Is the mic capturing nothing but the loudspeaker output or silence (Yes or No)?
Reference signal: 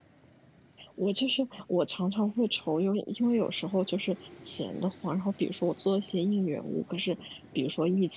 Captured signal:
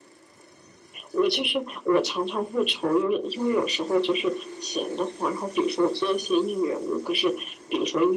Yes